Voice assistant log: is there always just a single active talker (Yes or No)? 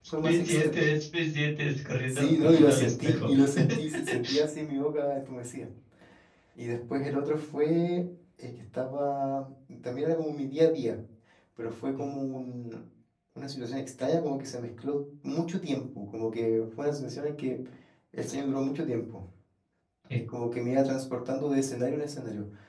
No